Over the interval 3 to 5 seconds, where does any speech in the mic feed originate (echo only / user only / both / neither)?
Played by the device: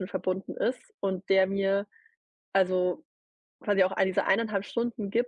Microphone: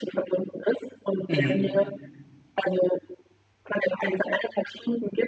echo only